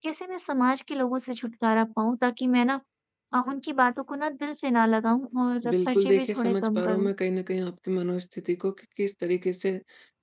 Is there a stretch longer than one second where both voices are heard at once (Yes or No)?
Yes